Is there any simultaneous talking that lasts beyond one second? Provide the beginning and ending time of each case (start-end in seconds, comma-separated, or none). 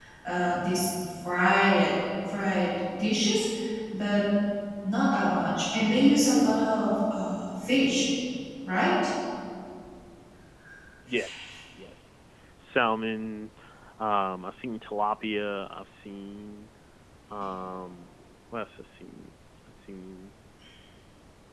none